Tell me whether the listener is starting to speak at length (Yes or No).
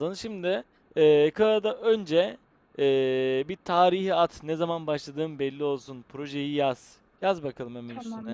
Yes